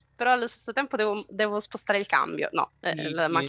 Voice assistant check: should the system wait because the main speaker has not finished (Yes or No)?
No